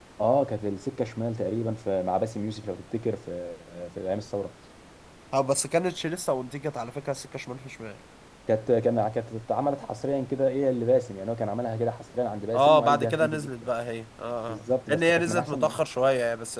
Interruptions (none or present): present